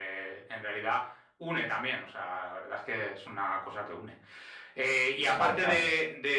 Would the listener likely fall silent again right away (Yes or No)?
Yes